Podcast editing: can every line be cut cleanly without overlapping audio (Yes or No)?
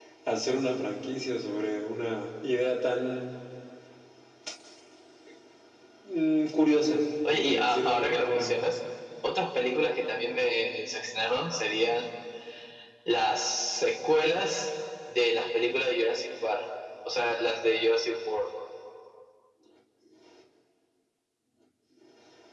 No